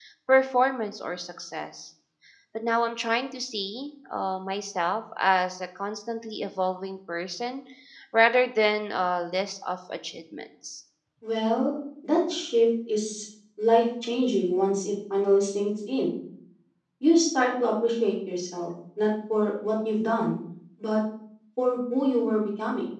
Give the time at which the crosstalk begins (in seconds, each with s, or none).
none